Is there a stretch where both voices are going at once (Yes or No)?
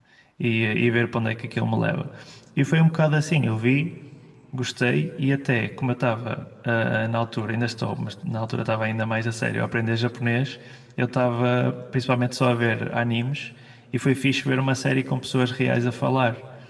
No